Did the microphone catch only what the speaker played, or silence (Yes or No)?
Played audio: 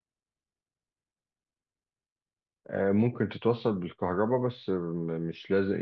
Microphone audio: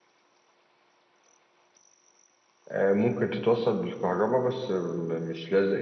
Yes